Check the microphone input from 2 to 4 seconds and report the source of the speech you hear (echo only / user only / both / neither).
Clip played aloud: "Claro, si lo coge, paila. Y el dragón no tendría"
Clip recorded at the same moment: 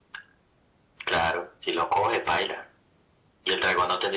echo only